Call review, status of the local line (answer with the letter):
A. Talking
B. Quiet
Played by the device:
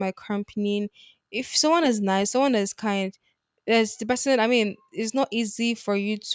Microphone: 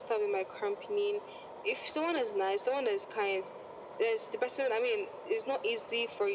B